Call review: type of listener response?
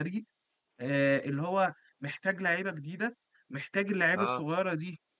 listening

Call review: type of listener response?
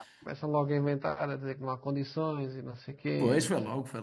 taking over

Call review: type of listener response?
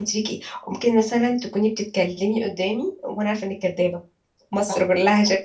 listening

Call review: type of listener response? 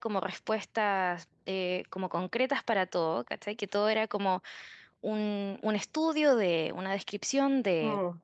listening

